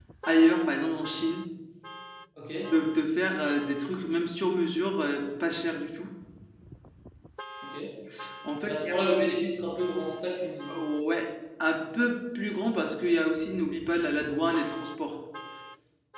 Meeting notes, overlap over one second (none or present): none